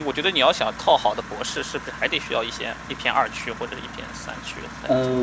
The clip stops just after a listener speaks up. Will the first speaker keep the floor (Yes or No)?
No